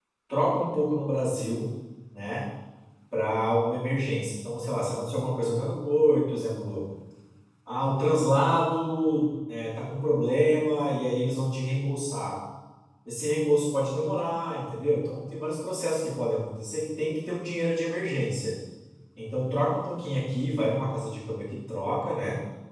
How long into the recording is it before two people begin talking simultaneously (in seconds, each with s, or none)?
none